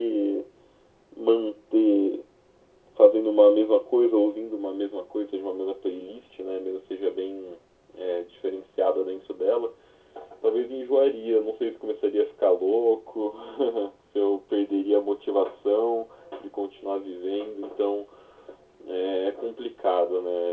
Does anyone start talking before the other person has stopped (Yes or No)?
No